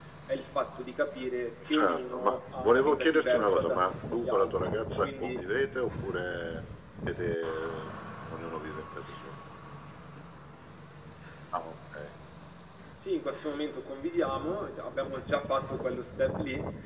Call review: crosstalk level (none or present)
present